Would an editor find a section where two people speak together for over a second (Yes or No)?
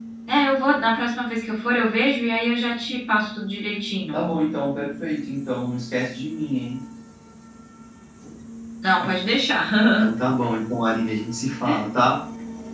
No